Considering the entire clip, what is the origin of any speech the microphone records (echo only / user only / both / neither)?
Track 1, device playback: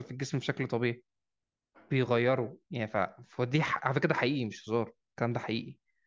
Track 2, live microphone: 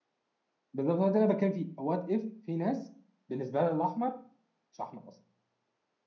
user only